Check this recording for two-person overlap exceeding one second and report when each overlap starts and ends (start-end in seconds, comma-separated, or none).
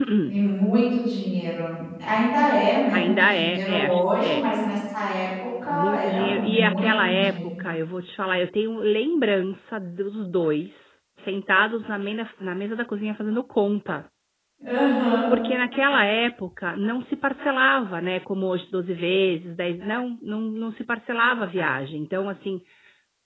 3.0-4.4, 5.7-7.3